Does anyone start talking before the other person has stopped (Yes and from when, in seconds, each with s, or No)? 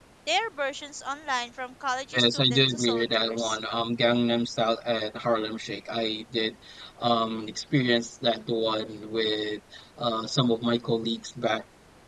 Yes, from 2.1 s